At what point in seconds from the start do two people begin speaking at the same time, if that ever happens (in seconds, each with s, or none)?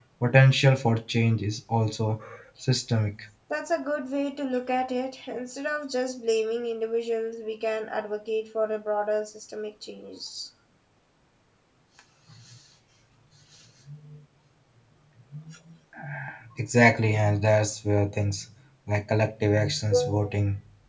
none